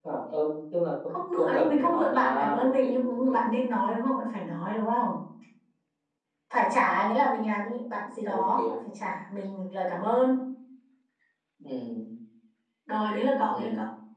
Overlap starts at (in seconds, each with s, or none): 1.1 s